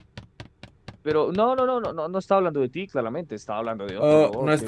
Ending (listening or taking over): taking over